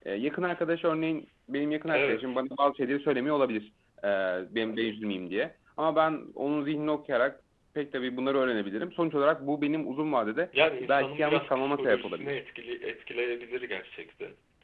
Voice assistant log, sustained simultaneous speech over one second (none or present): present